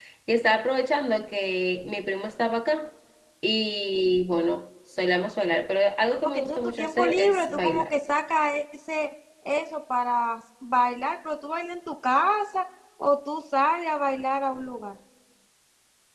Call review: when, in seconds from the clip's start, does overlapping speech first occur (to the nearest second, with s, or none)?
6 s